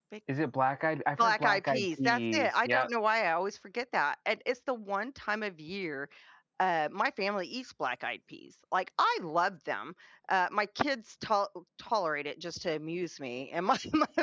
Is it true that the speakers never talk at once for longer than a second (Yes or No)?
No